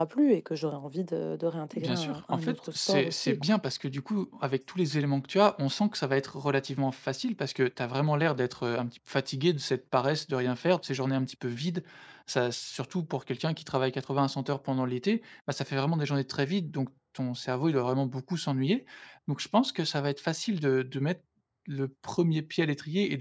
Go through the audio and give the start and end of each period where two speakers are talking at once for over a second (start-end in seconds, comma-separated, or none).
1.8-3.4